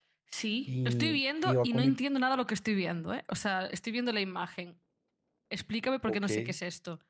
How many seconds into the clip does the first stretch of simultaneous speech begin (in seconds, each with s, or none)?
0.7 s